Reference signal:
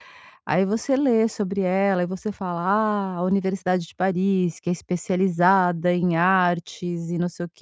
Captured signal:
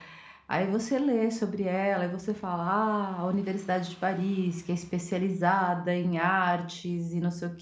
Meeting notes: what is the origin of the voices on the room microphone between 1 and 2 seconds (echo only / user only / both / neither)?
echo only